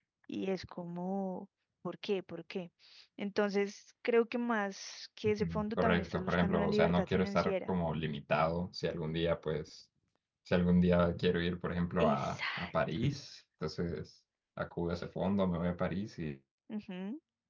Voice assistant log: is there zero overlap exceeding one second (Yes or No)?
No